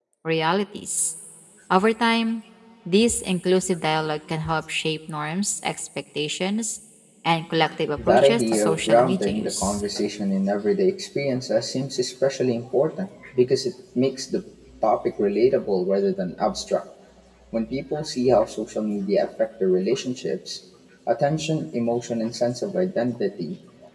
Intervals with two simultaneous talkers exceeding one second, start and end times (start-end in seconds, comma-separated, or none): 8.0-9.8